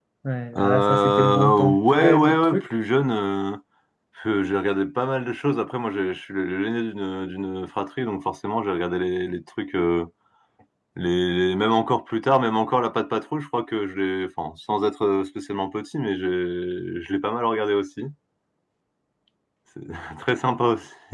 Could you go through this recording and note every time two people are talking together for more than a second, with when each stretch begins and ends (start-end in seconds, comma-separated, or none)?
0.6-2.7